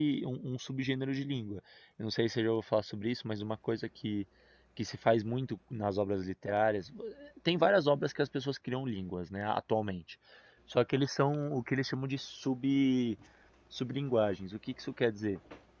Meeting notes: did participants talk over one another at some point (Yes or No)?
No